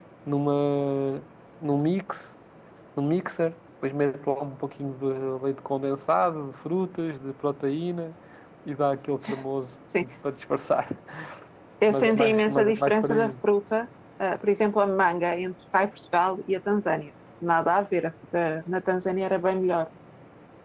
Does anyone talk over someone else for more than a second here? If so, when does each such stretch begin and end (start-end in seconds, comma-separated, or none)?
11.9-13.3